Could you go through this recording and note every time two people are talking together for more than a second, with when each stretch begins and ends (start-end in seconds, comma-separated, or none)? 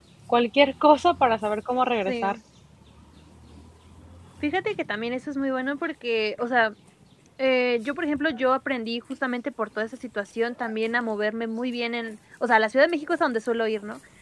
none